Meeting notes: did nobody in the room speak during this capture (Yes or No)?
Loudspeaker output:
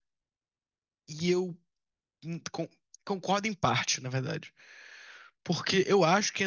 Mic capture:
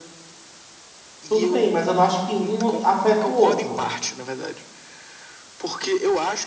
No